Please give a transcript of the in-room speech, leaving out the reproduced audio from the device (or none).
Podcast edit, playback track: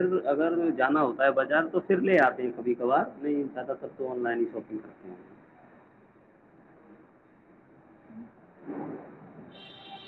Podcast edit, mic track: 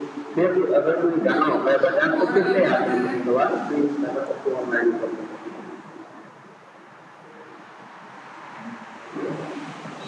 بالکل اور آپ کو پت ہے